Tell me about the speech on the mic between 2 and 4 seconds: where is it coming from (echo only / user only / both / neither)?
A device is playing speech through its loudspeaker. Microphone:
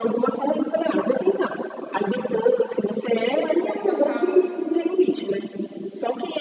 both